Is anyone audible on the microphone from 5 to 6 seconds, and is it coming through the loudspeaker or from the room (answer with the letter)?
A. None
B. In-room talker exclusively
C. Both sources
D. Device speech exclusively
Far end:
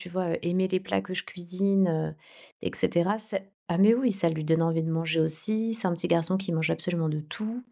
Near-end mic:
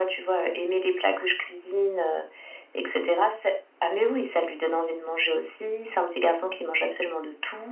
D